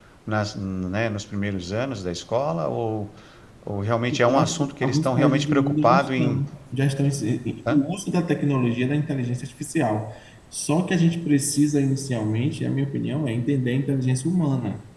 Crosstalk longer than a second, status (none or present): present